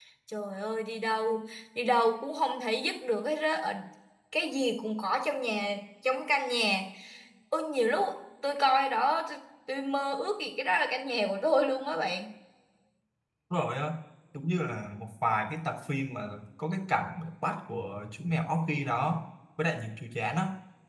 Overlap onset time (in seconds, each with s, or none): none